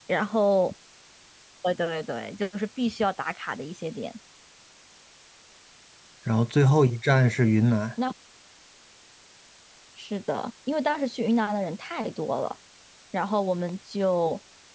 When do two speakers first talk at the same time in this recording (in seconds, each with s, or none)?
none